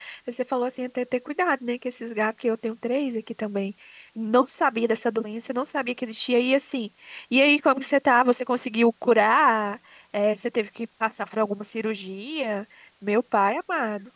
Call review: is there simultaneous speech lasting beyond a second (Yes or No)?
No